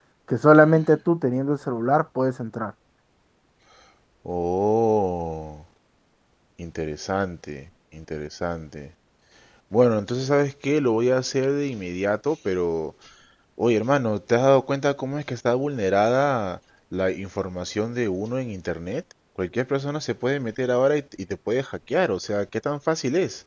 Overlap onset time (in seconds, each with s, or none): none